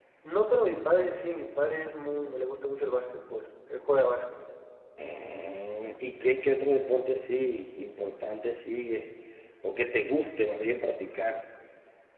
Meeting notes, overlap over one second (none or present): none